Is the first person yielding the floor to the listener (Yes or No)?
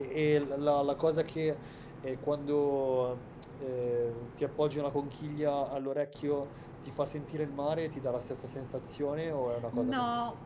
Yes